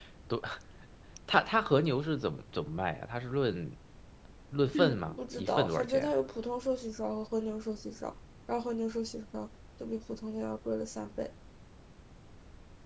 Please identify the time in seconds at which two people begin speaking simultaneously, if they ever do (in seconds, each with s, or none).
4.7 s